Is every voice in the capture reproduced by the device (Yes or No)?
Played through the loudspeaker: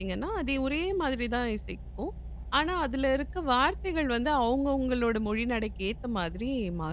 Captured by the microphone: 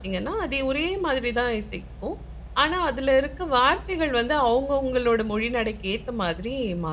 Yes